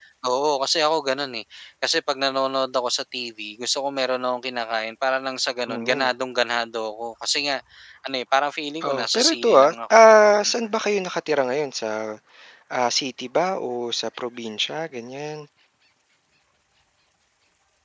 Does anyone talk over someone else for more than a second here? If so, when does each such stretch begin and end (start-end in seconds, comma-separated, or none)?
8.8-10.5